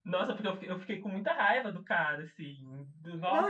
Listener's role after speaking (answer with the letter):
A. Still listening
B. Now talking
B